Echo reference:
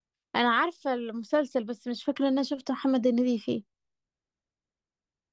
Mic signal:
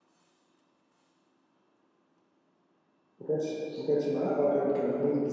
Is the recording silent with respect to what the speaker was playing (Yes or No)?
Yes